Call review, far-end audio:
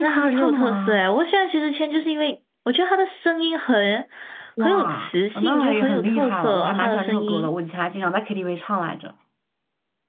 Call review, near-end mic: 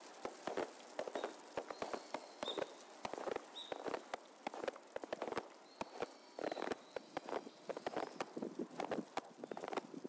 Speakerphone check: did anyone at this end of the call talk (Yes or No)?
No